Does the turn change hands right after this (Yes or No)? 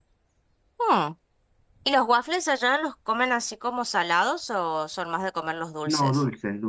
Yes